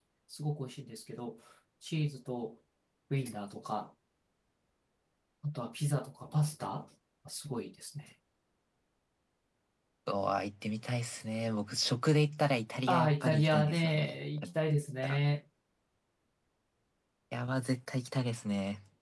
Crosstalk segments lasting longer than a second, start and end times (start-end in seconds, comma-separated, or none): 12.9-14.5